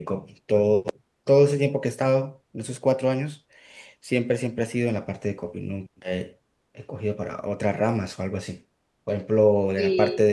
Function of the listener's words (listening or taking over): listening